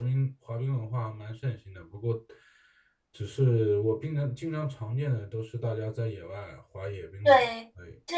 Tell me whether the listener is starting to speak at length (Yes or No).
Yes